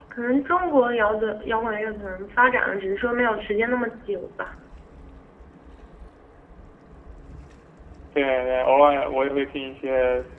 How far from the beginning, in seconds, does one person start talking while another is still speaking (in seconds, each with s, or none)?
none